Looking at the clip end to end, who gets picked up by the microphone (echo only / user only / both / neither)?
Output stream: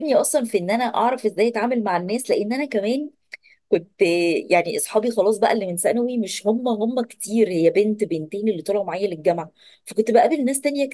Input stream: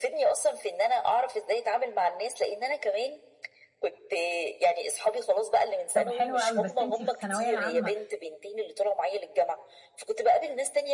both